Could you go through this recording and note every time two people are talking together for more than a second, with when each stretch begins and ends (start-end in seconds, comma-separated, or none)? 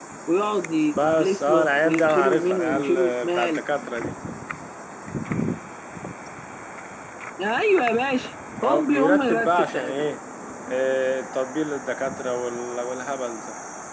1.0-3.6, 8.6-10.1